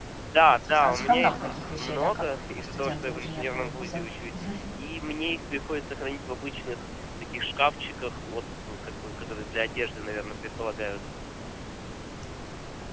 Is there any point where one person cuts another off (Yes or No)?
Yes